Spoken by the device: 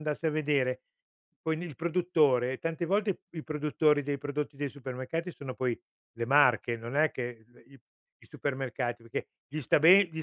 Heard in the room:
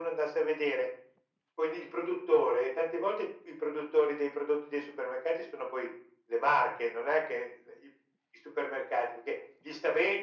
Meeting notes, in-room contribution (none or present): none